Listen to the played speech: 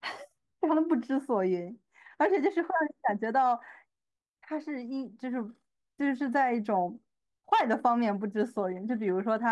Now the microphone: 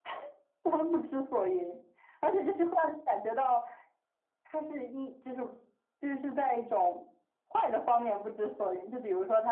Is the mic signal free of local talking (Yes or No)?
Yes